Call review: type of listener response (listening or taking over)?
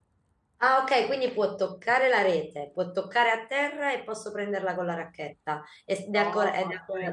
taking over